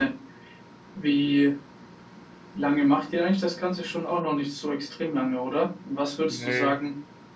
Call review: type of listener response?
listening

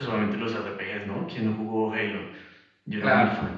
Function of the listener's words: taking over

